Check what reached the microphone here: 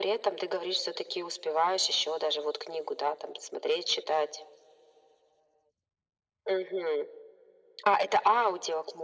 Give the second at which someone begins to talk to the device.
none

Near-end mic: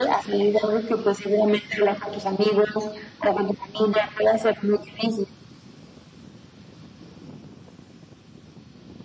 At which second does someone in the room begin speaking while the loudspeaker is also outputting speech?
none

